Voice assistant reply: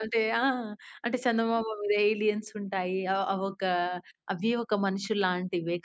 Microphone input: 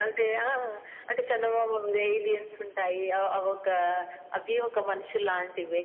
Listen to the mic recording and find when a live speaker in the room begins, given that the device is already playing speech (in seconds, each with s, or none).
none